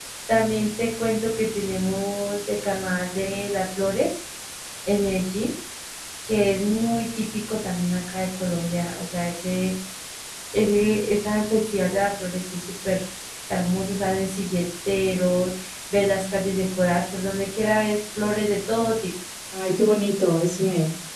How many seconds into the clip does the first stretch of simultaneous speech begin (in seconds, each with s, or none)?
none